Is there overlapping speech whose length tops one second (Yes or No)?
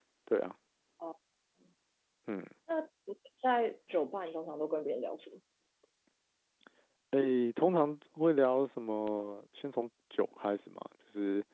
No